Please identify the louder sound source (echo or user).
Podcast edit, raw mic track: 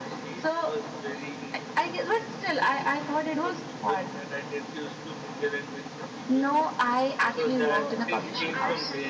echo